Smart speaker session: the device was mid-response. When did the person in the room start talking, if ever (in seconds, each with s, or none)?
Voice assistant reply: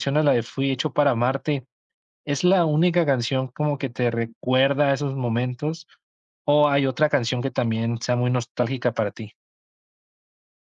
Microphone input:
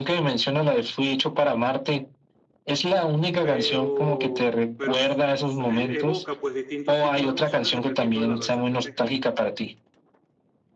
3.4 s